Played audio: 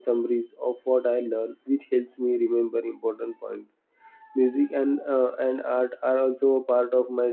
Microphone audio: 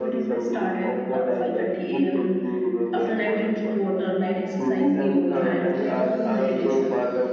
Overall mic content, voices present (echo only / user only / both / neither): both